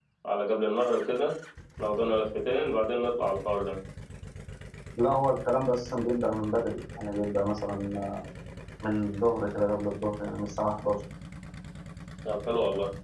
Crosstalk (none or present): none